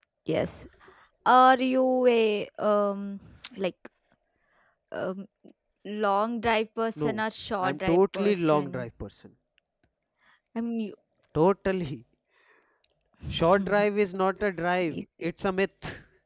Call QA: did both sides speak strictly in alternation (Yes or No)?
No